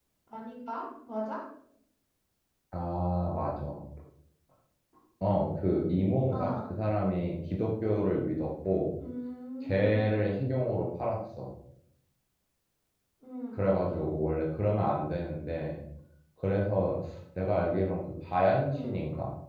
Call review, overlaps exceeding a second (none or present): none